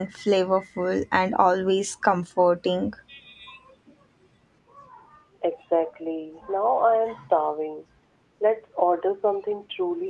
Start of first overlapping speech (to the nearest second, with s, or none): none